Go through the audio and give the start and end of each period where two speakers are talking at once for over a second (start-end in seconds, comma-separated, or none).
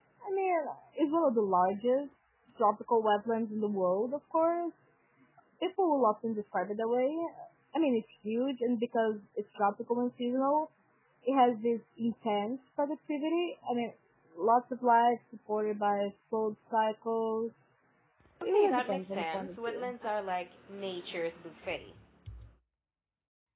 18.4-19.9